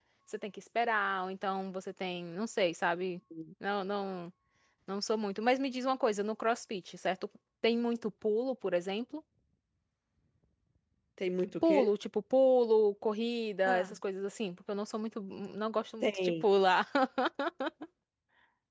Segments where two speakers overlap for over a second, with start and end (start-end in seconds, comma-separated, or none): none